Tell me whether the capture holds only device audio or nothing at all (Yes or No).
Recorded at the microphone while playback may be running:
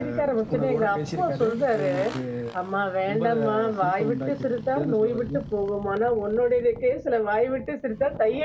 Yes